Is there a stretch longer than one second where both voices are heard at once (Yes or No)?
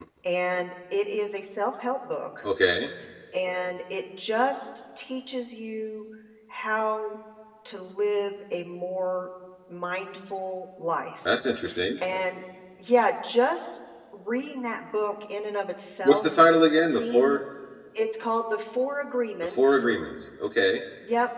No